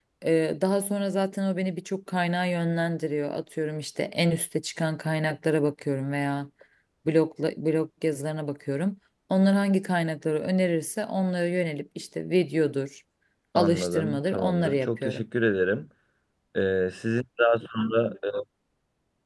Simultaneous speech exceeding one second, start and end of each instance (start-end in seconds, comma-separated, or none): 13.6-15.2